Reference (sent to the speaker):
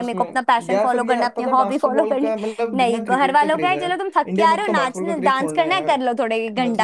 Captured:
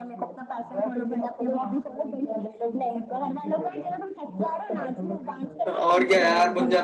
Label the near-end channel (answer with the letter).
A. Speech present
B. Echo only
A